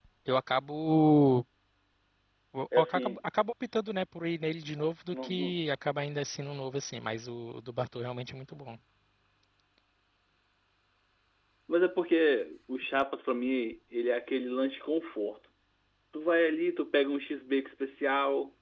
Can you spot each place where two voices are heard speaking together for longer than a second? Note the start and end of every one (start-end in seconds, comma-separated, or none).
none